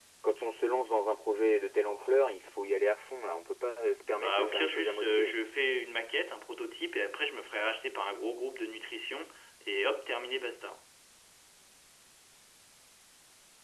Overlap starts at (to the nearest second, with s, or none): 4 s